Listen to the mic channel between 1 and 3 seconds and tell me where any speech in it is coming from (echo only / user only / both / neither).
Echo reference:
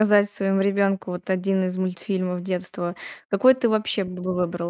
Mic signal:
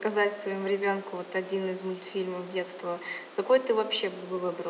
echo only